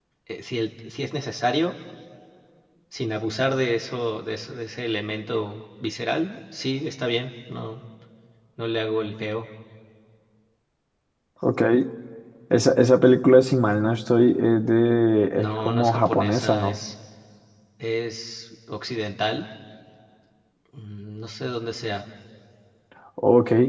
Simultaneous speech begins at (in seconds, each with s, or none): 15.4 s